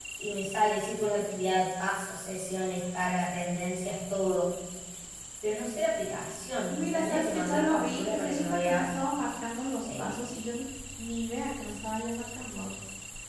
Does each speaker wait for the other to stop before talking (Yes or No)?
No